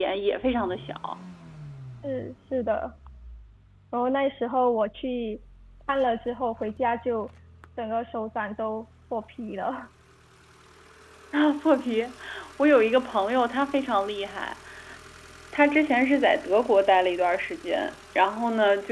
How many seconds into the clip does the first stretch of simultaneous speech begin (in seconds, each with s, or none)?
none